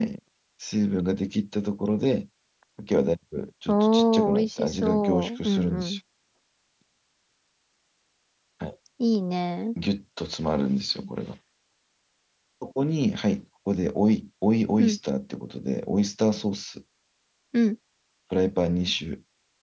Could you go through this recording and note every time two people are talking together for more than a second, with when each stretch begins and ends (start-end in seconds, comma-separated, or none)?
3.7-6.0